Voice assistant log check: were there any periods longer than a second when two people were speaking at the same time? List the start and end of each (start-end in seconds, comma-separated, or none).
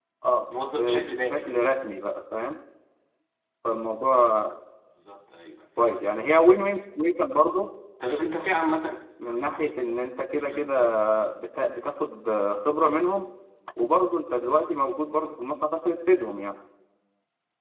0.5-1.7